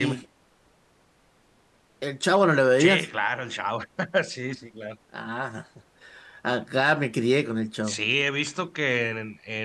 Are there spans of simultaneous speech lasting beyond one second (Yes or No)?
No